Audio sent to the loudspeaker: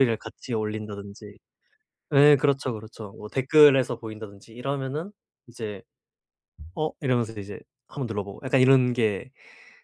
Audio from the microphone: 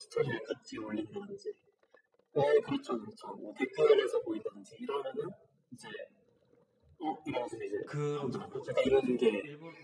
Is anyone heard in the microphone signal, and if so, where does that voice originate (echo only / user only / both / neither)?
both